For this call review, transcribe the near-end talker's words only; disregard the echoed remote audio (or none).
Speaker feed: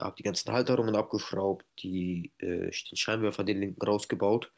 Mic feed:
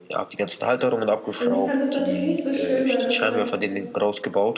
Also sie fand das natürlich nicht so schön, weil das war